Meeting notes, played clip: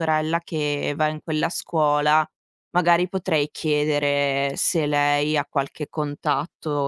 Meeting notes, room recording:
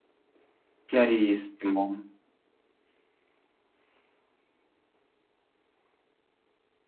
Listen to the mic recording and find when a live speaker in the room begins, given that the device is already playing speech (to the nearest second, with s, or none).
1 s